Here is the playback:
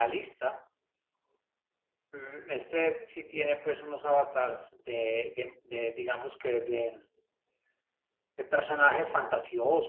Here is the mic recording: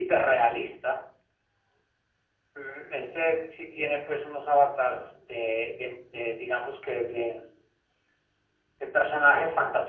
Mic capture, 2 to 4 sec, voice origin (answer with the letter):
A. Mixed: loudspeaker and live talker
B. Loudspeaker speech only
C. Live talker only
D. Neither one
B